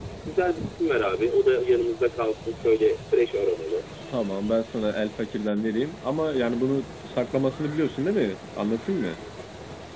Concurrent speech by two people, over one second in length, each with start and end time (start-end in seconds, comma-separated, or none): none